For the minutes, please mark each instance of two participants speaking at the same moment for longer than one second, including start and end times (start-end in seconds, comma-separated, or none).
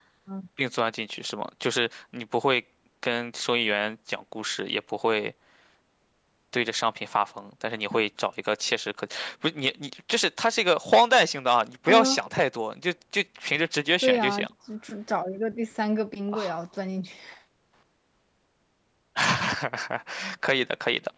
none